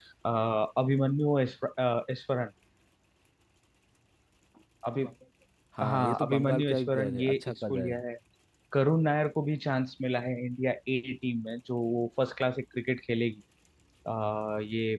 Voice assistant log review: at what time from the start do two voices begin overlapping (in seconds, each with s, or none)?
5.8 s